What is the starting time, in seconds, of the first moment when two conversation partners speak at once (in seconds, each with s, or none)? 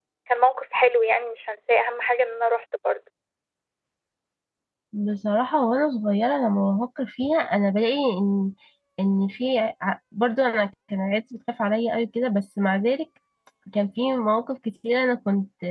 none